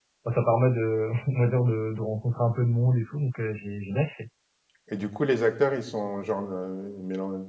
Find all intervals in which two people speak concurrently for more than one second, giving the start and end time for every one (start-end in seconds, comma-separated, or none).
none